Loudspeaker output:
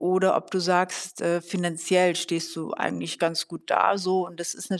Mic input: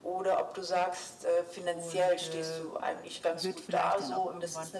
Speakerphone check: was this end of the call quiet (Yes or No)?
No